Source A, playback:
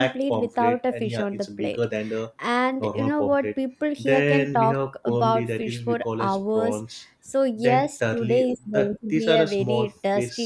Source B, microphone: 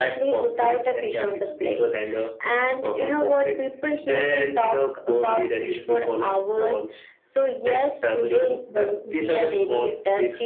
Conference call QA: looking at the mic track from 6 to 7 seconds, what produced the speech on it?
echo only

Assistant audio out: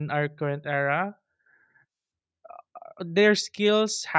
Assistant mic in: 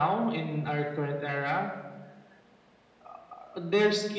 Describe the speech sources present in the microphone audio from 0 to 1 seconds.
echo only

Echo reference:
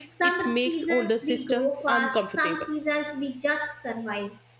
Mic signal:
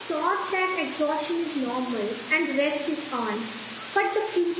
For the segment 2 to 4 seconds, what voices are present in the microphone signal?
user only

